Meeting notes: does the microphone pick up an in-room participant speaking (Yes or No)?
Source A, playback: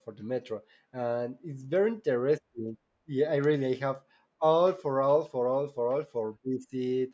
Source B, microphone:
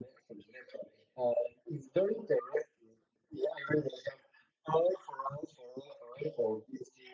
No